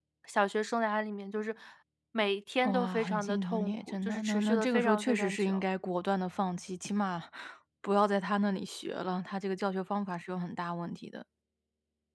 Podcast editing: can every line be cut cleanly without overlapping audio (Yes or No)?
No